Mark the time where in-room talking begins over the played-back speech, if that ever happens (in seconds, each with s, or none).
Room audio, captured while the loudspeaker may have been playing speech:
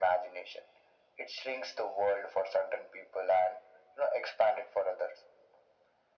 none